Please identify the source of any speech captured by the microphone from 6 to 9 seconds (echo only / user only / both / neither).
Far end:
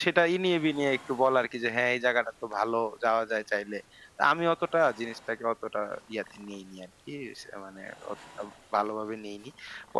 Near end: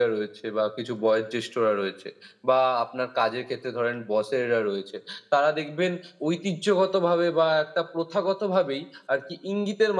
user only